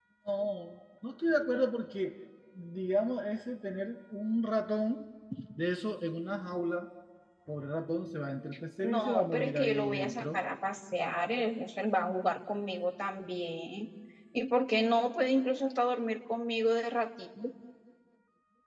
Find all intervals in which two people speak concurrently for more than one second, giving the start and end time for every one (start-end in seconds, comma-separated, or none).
8.8-10.4